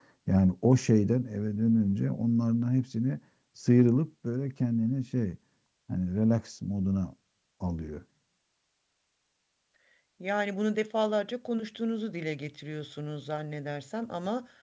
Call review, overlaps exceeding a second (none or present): none